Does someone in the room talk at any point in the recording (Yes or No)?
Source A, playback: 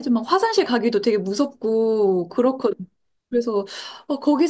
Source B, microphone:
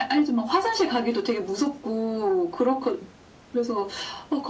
No